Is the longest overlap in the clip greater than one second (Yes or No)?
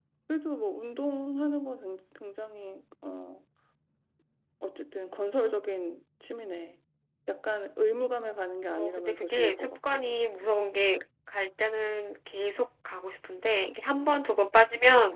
Yes